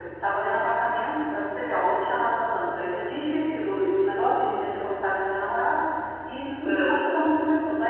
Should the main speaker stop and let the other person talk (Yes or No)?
No